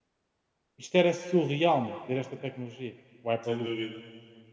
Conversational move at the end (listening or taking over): taking over